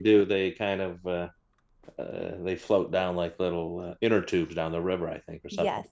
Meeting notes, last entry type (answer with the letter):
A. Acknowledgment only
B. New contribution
A